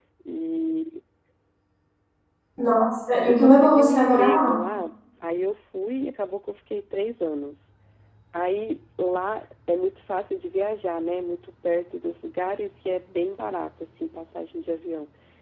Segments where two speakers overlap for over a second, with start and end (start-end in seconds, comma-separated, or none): 3.3-4.6